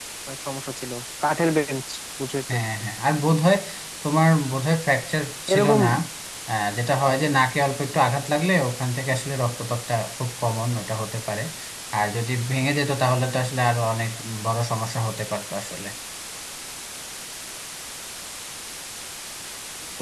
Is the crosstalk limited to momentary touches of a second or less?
Yes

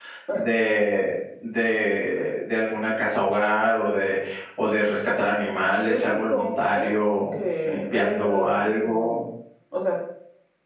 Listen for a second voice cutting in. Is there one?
Yes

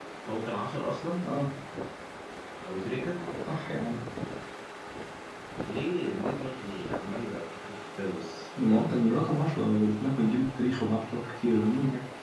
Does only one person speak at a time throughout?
Yes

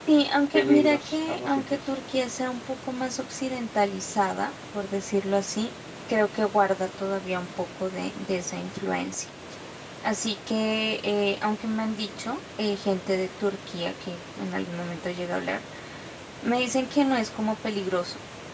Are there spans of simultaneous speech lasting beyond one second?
Yes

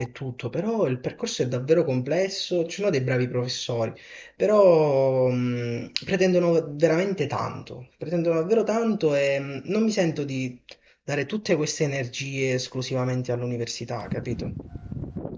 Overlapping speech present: No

